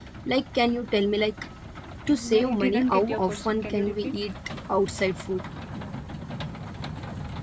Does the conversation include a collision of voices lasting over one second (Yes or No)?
Yes